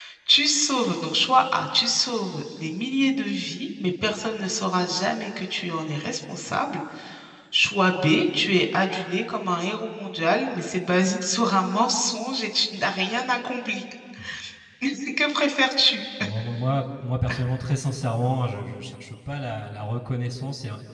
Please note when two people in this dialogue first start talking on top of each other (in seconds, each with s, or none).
none